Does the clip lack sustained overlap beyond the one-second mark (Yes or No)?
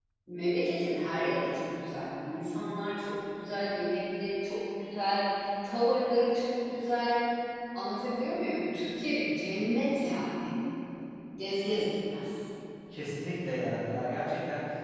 Yes